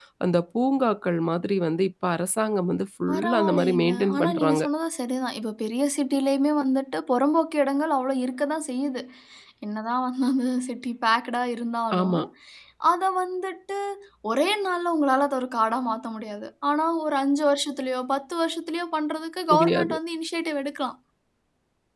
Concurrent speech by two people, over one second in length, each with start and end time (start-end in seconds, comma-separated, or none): 3.1-4.6